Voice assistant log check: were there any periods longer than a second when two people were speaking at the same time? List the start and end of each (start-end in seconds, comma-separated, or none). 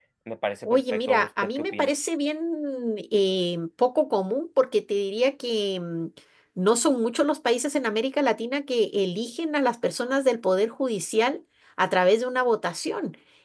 0.7-1.9